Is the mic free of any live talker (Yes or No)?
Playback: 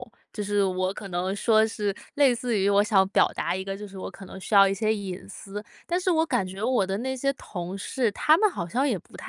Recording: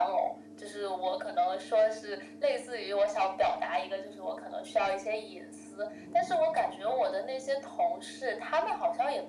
Yes